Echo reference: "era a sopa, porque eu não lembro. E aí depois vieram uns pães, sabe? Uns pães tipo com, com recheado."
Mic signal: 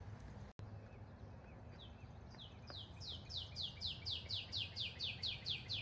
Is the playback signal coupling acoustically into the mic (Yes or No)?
No